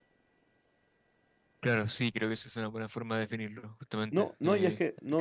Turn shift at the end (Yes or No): Yes